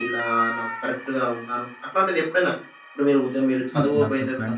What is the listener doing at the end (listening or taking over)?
taking over